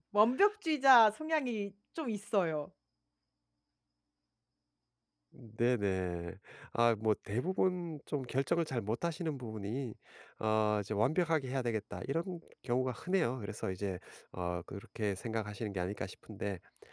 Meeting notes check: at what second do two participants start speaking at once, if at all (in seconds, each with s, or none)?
none